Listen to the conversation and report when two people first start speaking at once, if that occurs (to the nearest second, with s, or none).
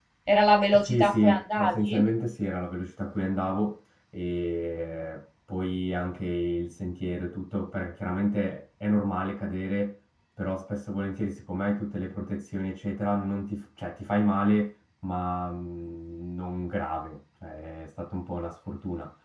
1 s